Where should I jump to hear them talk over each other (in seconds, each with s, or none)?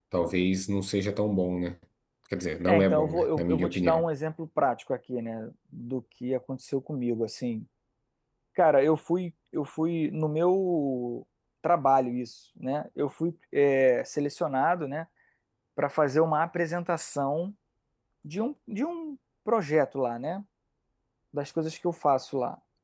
2.6 s